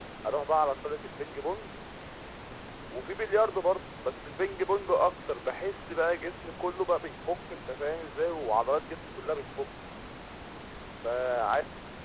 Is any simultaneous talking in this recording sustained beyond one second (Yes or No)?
No